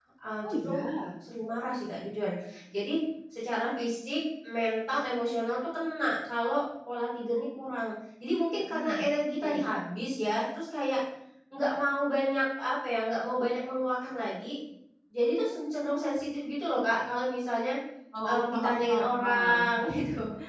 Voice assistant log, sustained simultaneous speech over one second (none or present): present